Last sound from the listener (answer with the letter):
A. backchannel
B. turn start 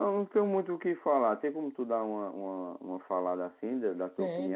B